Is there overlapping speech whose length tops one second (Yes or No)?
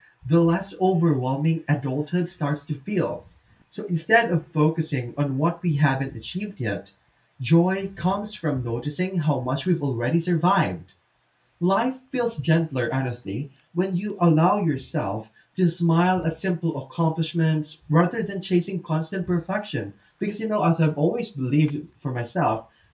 No